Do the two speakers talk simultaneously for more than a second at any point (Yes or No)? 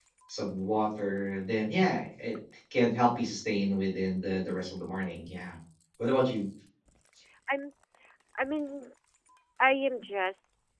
No